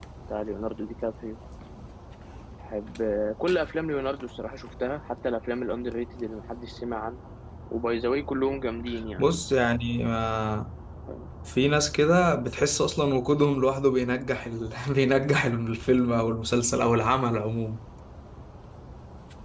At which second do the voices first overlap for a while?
none

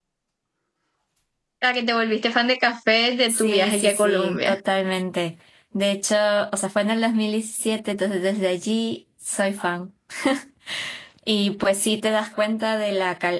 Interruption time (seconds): 3.3 s

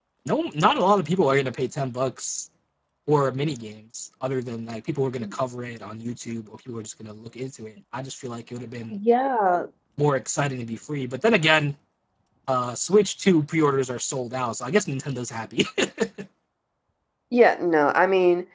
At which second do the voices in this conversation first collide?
none

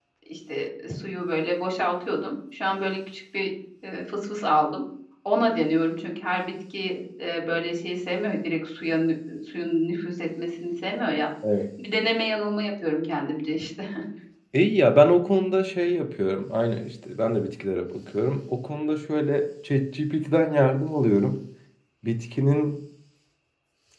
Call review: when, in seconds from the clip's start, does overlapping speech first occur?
none

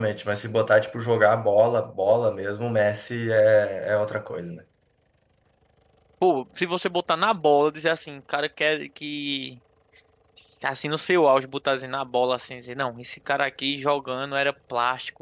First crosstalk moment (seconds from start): none

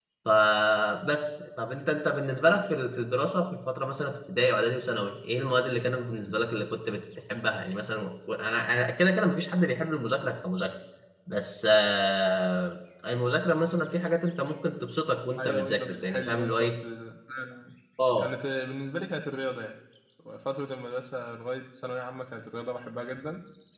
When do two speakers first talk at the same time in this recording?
15.4 s

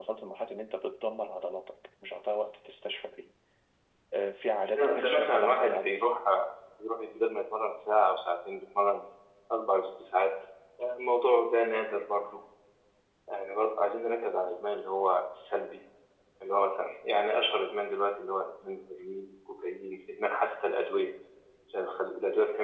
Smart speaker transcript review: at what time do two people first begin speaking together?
4.7 s

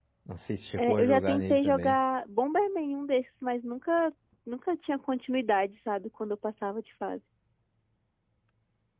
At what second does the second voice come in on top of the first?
0.8 s

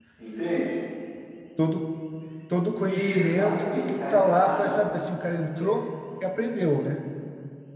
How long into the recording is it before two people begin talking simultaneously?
2.8 s

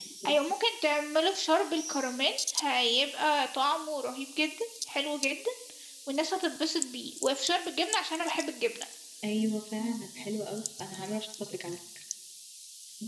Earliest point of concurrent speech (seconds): none

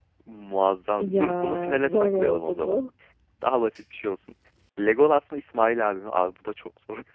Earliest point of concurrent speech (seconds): 1.0 s

